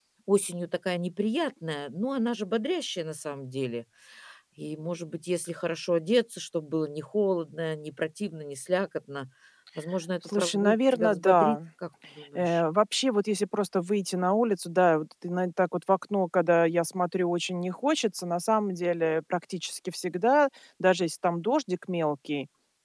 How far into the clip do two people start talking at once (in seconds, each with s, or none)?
10.2 s